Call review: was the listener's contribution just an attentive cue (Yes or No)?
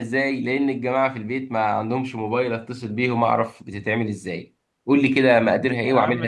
No